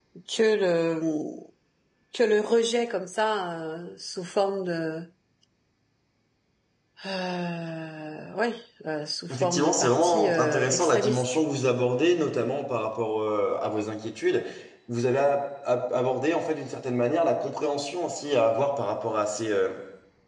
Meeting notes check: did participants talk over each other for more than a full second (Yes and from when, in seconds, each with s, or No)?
Yes, from 9.3 s